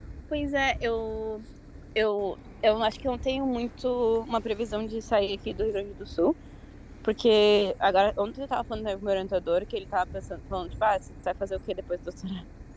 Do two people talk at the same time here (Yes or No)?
No